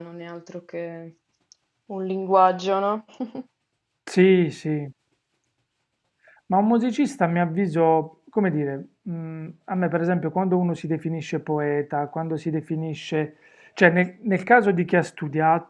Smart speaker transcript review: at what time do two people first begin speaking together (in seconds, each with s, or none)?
none